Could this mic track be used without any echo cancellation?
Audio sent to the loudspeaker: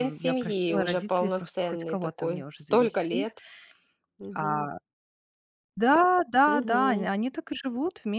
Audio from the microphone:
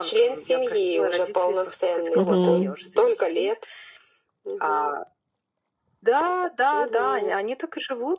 No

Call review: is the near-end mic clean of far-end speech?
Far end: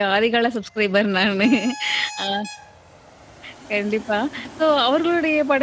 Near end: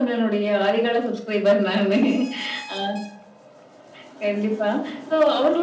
No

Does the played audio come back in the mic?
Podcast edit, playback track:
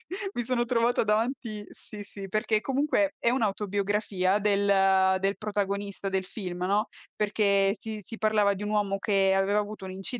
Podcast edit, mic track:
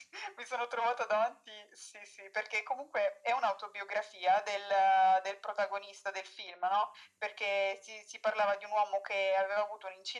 Yes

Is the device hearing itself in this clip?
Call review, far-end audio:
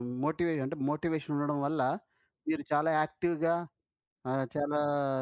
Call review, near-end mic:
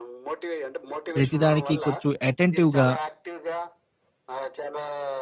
Yes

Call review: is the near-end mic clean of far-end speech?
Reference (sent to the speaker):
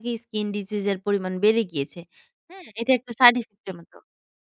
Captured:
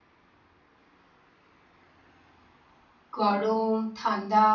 Yes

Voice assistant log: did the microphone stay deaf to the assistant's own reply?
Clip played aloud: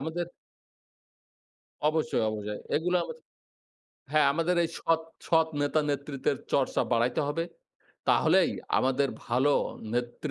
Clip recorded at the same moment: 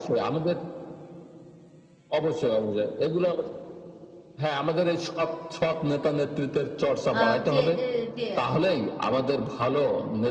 No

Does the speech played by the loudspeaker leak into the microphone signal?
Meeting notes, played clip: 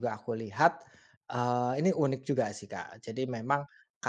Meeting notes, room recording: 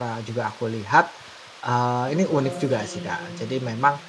Yes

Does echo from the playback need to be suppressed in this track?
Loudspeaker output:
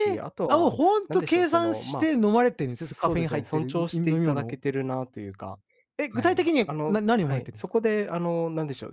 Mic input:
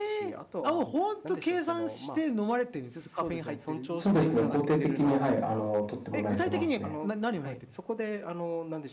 Yes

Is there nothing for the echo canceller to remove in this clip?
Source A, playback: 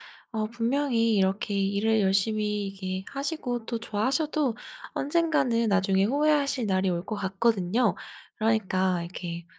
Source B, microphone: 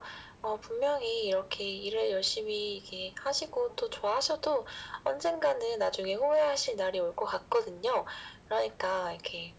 No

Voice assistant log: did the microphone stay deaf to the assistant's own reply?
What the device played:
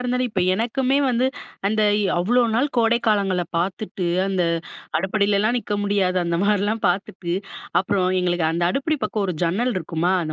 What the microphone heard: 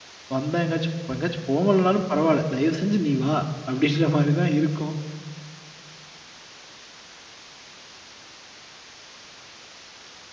Yes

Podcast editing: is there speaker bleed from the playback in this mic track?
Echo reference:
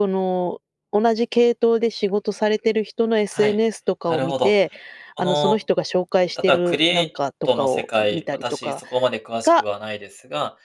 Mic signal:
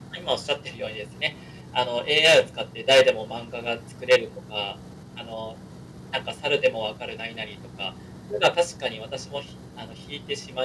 No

